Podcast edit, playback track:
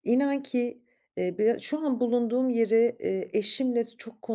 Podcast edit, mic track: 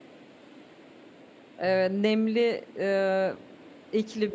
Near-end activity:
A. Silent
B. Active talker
B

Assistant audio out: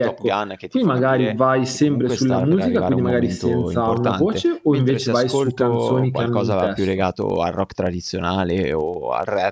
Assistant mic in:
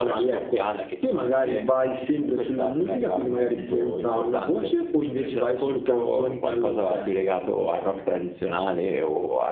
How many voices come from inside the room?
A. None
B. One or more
A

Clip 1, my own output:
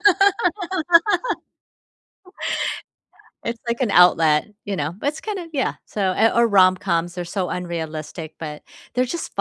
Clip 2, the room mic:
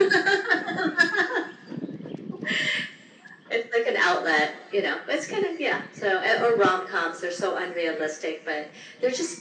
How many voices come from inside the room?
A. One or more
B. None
B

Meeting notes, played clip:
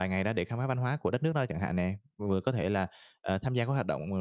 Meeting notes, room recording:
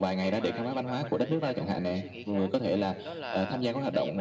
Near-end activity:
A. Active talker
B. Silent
A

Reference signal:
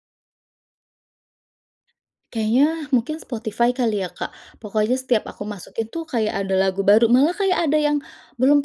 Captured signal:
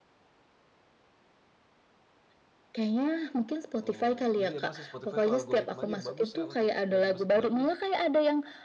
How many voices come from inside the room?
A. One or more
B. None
A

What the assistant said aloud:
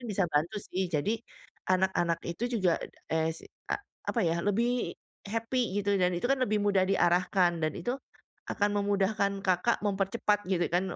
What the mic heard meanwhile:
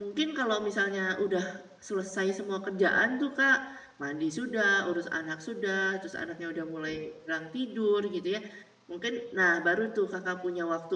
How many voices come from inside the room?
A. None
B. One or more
B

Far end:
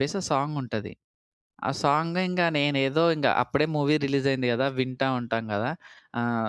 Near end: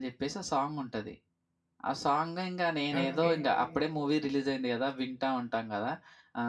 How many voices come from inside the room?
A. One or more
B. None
A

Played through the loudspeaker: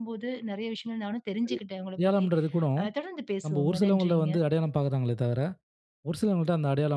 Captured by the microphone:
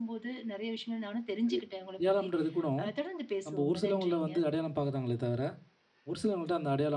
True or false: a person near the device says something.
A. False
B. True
A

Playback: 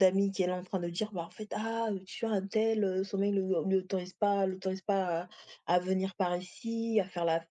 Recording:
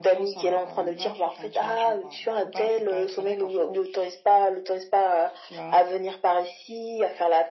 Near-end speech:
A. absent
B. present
B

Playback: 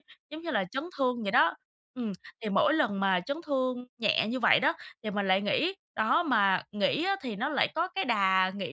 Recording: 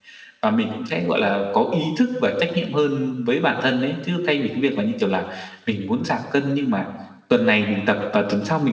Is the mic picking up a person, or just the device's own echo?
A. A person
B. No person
A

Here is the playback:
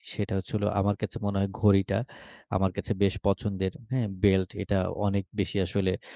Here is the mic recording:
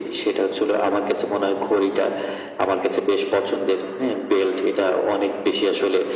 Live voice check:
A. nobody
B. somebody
A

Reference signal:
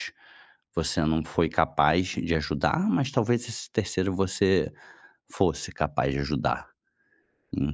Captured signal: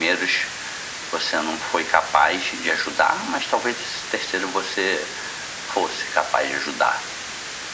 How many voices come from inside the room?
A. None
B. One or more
A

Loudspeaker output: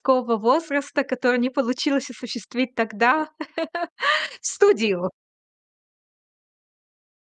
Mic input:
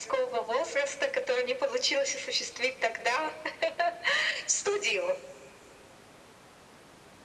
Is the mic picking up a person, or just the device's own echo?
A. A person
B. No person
B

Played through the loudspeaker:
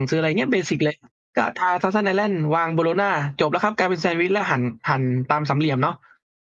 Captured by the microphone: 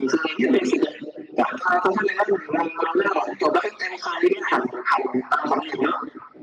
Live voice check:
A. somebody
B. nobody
B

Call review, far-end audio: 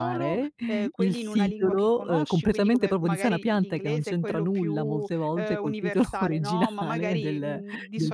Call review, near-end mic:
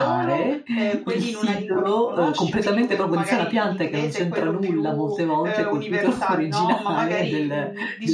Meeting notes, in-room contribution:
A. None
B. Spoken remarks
A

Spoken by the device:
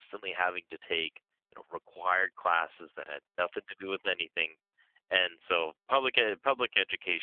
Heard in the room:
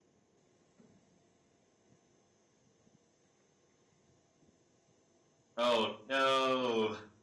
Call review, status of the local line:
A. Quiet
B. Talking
B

